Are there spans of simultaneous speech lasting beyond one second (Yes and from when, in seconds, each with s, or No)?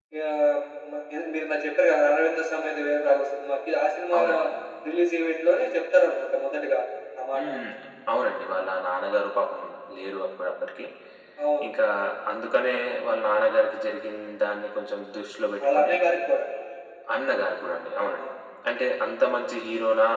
No